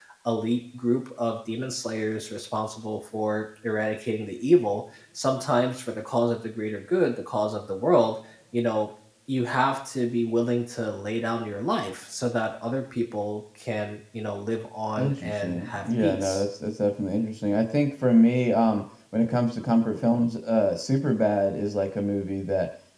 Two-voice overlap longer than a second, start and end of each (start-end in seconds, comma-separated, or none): 15.0-16.4